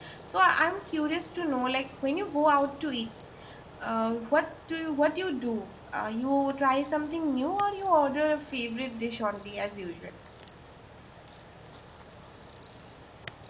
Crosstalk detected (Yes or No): No